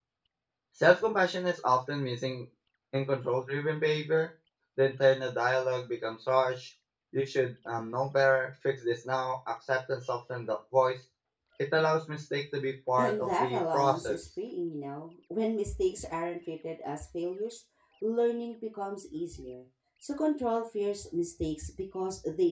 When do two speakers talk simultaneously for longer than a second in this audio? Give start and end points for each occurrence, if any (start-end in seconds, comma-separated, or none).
13.0-14.2